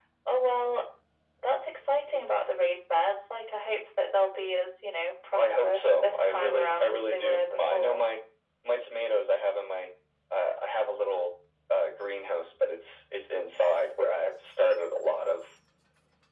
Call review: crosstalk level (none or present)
present